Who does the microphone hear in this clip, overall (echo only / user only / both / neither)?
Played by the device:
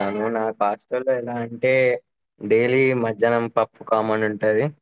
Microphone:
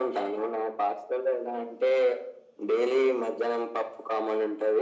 echo only